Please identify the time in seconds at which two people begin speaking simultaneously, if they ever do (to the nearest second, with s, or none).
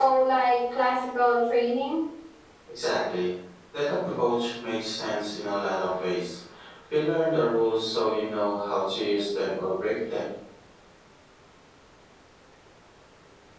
none